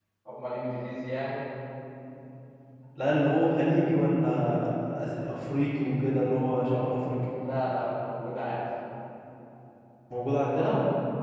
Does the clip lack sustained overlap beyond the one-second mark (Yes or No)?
Yes